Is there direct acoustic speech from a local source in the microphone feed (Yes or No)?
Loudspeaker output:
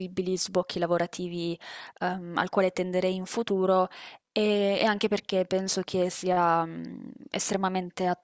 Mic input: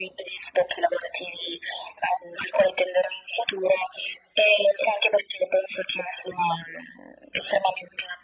No